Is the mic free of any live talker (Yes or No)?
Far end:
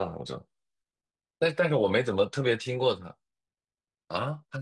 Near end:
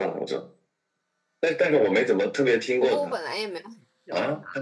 No